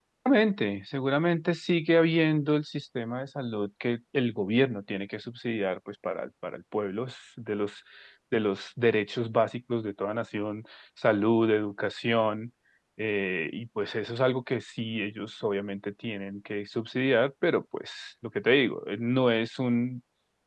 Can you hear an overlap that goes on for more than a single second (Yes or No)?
No